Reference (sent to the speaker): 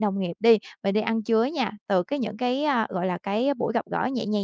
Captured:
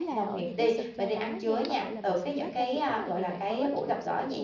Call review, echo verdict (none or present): present